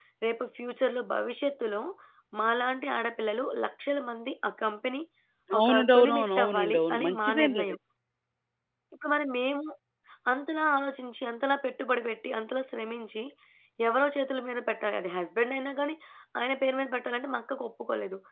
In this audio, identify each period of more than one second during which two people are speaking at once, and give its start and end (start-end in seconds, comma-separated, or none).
5.6-7.8